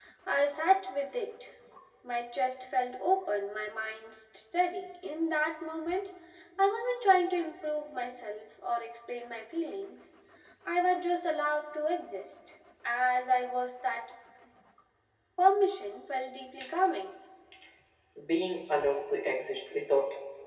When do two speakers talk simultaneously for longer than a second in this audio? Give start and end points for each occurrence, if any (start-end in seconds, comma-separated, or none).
none